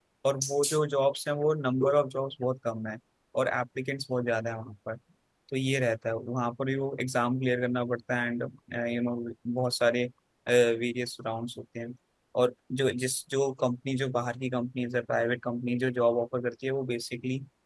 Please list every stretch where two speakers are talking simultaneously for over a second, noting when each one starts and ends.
none

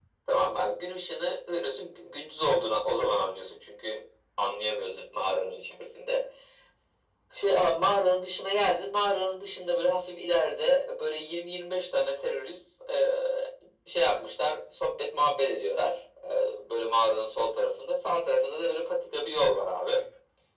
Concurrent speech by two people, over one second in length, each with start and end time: none

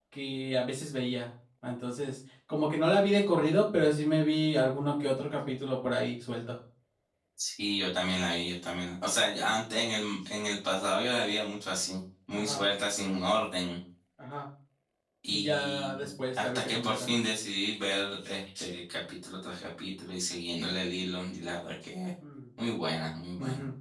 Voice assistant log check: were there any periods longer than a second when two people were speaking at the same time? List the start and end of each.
15.3-17.1

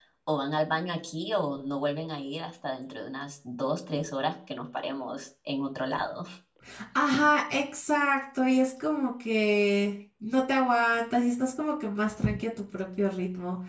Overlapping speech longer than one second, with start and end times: none

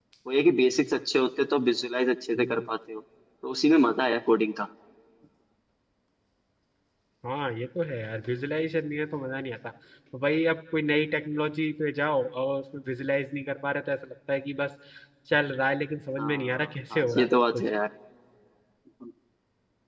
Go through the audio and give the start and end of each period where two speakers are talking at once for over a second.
16.2-17.6

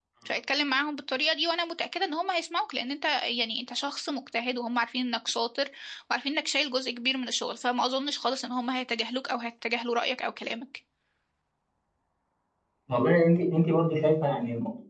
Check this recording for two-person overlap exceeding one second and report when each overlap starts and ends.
none

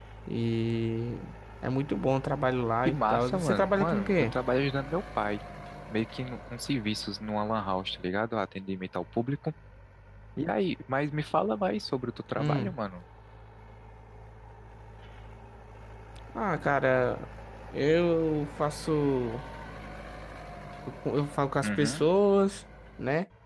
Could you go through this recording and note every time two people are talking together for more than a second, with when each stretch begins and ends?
2.9-4.2

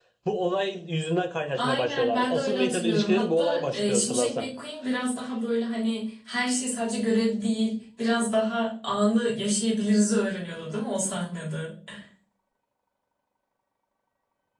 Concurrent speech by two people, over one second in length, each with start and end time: 1.6-4.5

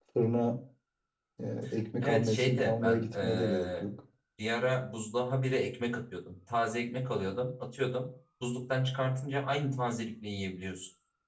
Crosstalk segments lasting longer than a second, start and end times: 2.0-3.8

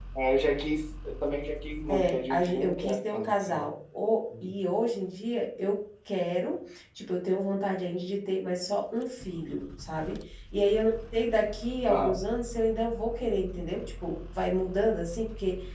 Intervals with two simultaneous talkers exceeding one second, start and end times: 1.9-3.7

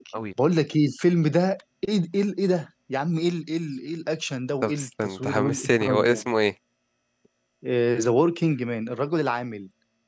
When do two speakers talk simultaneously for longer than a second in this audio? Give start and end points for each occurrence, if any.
4.6-6.2

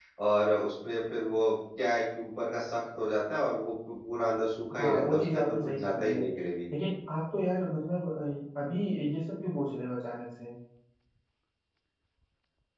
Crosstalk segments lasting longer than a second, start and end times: 4.8-6.2

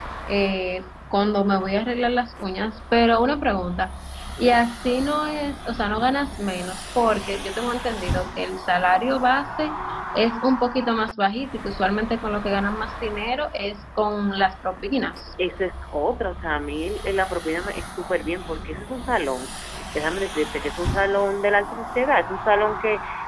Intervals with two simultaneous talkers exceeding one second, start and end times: none

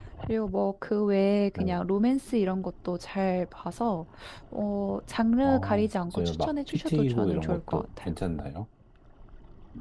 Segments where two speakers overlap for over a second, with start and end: 5.4-8.1

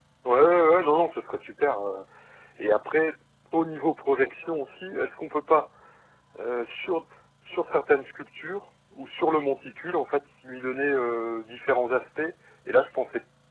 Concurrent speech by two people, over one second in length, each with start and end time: none

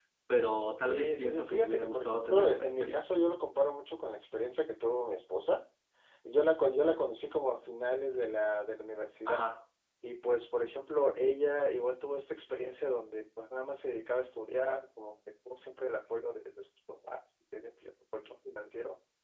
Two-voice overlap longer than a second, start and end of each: 0.9-3.1

